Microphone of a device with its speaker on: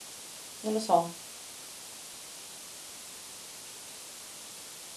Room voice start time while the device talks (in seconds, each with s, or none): 0.6 s